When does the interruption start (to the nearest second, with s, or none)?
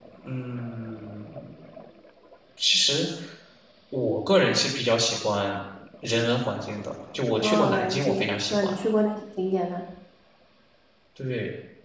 7 s